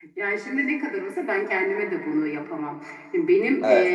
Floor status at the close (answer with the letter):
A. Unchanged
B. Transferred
A